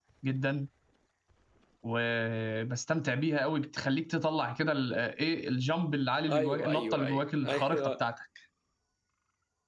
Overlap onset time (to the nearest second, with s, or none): 6 s